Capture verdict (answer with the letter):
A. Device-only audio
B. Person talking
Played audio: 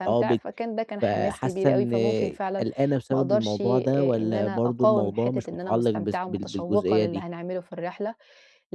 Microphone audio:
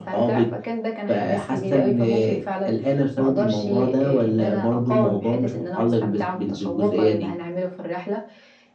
A